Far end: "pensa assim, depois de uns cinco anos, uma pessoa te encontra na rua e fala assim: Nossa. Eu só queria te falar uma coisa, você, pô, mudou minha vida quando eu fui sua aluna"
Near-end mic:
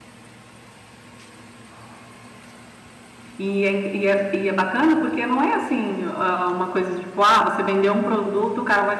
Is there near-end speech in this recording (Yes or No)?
Yes